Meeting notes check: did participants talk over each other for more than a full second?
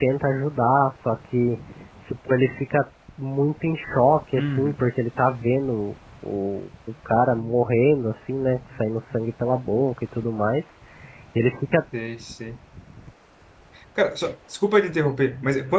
No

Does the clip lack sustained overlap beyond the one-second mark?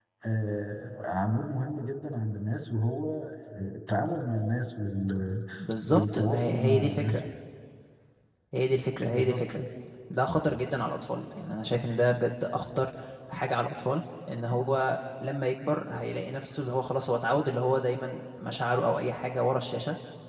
No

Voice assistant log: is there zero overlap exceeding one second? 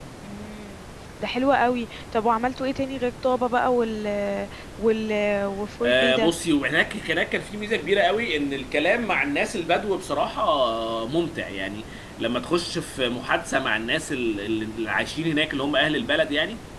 Yes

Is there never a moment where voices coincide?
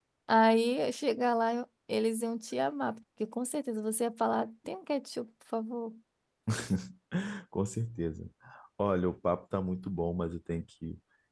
Yes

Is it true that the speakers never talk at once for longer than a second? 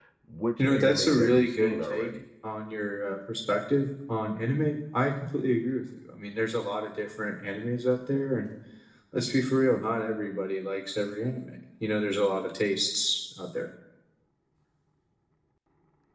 No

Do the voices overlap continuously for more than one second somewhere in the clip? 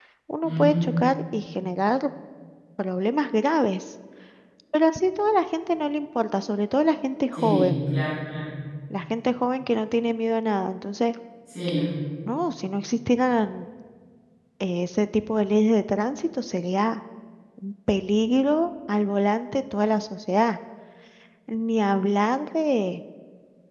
No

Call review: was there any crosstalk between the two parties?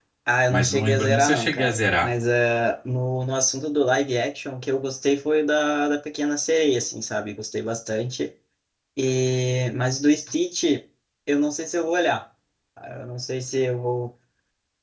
Yes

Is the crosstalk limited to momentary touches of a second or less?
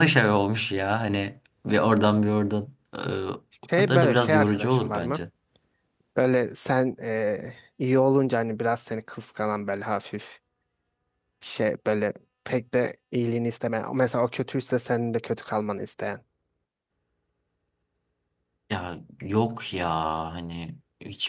No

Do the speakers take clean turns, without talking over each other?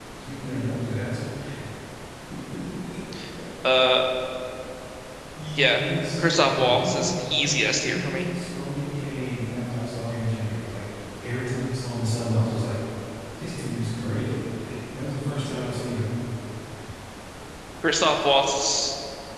No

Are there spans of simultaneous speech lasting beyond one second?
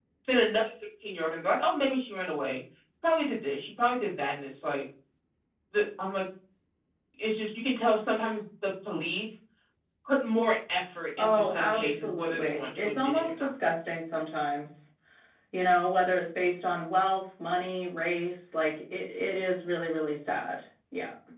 Yes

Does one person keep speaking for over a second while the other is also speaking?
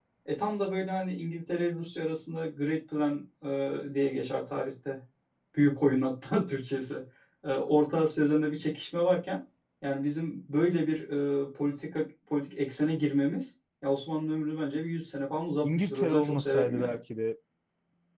Yes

